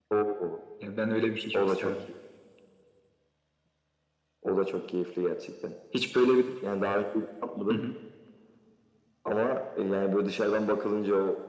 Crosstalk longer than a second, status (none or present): none